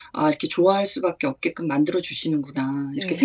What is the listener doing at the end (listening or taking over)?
taking over